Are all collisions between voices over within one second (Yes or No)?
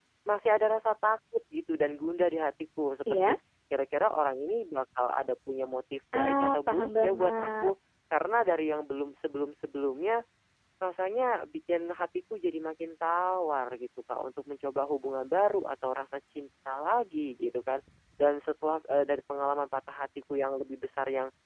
No